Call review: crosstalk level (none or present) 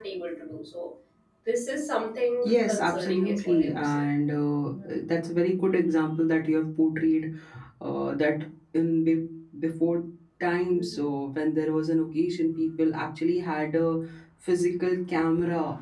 present